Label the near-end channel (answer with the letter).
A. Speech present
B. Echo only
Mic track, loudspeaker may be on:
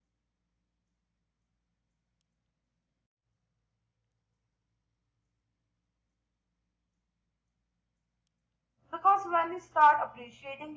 A